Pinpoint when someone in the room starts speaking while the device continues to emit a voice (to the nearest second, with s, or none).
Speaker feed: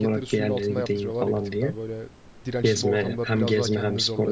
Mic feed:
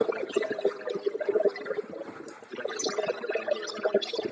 none